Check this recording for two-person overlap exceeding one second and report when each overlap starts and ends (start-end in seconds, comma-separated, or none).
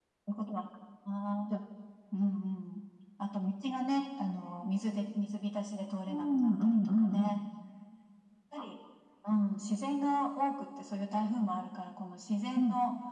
6.1-7.3